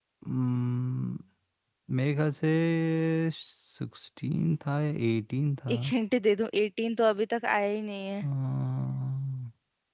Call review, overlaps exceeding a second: none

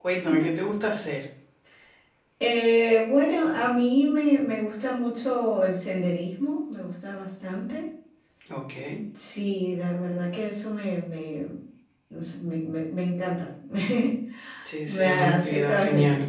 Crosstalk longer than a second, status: present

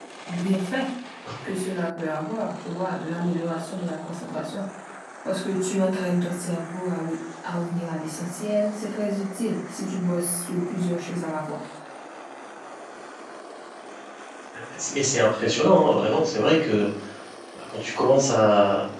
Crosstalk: none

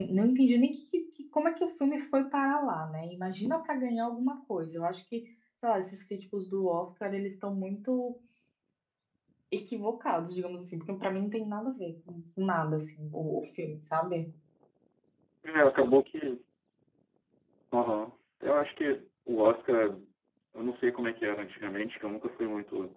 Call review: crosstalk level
none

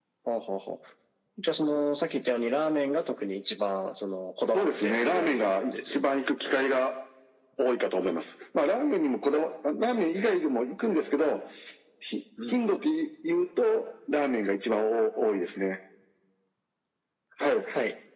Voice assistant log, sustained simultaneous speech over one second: present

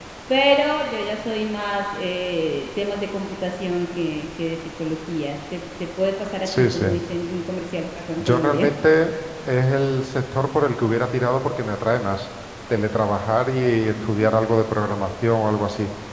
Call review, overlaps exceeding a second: none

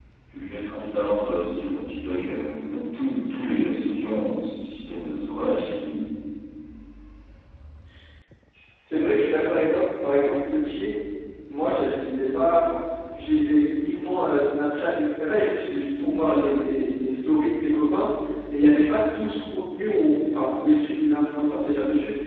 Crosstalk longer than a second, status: none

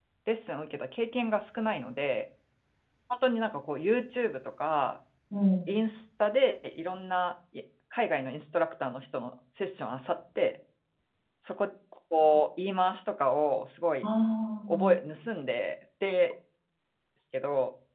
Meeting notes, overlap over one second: none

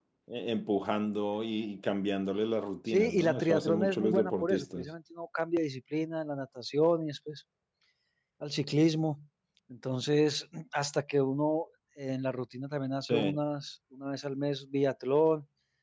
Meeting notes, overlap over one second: present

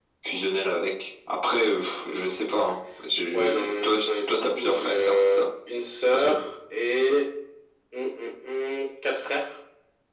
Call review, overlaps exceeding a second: present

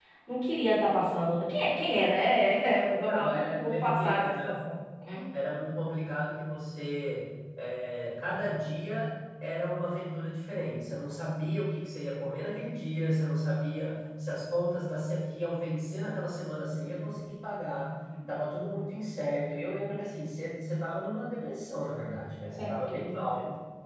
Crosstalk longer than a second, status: present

